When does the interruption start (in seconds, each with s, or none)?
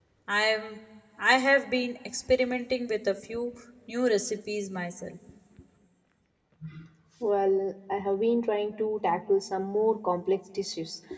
none